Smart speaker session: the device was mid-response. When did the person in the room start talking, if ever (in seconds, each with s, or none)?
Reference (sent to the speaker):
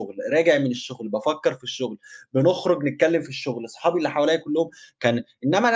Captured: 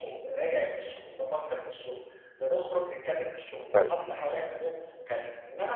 3.7 s